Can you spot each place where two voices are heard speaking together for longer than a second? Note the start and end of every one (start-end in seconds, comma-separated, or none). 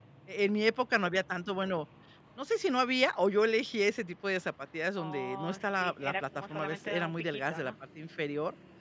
5.0-7.7